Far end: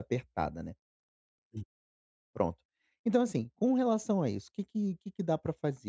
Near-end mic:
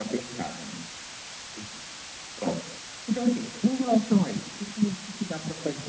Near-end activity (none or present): none